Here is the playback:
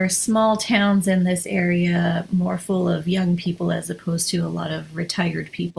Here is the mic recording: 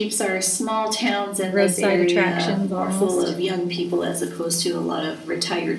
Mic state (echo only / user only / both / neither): both